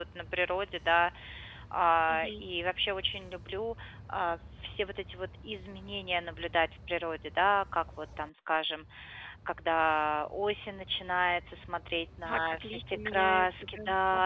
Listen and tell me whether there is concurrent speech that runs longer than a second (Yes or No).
Yes